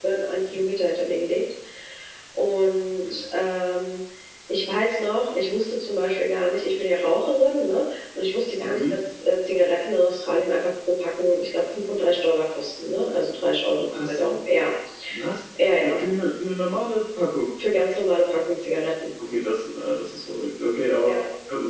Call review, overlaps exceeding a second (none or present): none